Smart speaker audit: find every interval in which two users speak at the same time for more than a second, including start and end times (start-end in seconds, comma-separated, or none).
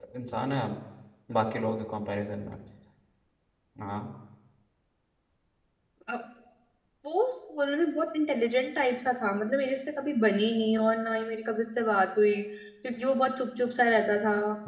none